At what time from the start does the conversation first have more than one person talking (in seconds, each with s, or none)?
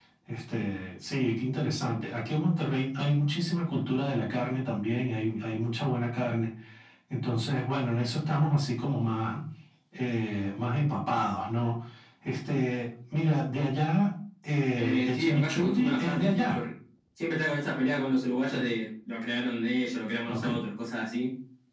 14.8 s